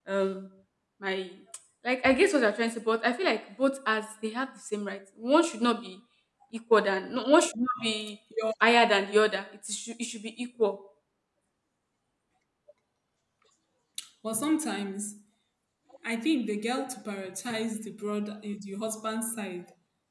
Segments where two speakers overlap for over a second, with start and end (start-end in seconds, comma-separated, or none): none